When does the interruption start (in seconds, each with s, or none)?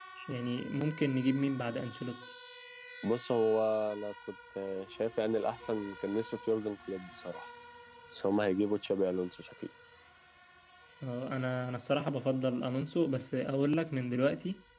none